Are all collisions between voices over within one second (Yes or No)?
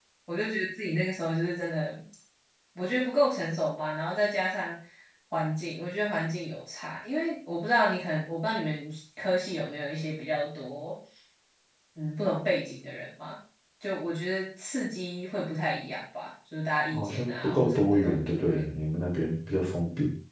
No